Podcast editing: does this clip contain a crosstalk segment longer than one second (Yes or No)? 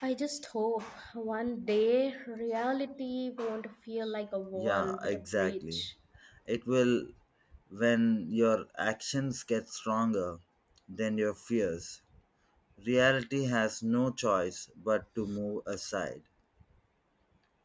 Yes